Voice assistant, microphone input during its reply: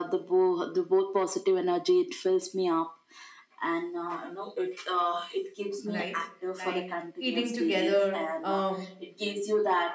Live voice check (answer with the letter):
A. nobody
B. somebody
B